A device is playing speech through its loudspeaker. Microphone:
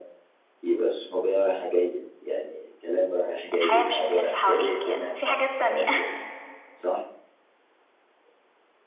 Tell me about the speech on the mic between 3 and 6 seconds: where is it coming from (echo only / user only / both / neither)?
both